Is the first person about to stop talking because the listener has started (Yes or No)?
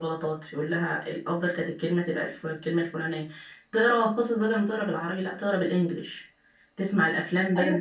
No